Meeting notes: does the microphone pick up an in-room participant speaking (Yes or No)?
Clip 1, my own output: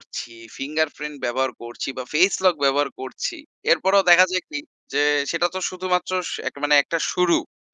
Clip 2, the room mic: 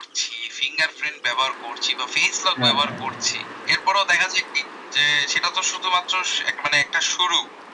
Yes